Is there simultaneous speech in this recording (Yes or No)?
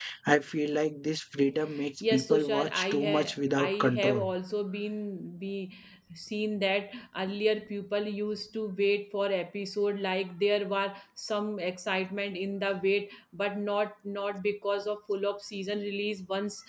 Yes